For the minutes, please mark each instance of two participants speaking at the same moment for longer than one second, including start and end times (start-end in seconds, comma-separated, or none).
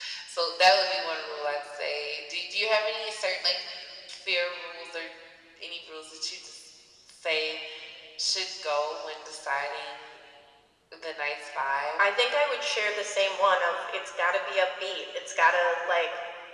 none